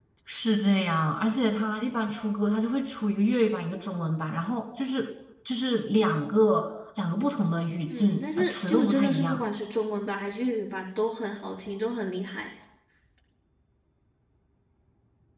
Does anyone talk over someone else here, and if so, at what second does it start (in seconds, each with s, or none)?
7.9 s